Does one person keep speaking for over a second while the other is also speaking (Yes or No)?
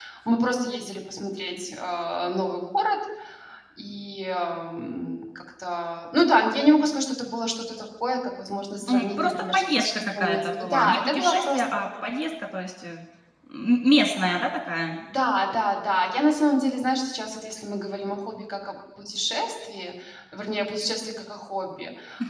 Yes